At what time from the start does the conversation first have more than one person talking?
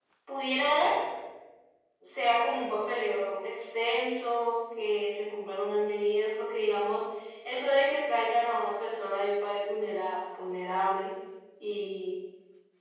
none

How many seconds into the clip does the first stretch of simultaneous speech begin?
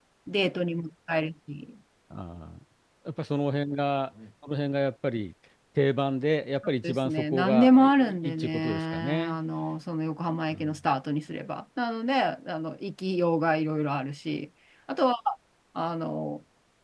6.8 s

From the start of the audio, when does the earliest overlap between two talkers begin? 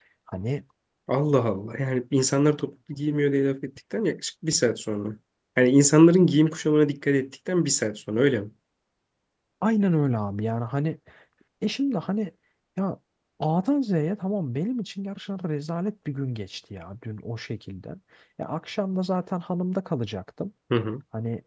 none

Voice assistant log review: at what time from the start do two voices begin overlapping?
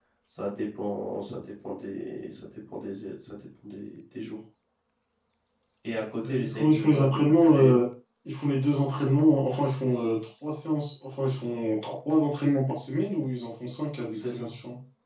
5.9 s

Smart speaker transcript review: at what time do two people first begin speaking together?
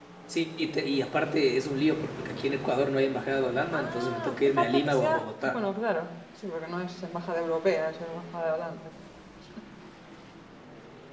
3.7 s

